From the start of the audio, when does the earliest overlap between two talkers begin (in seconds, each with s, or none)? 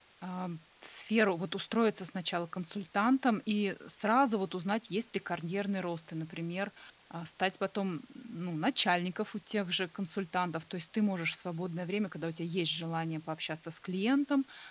none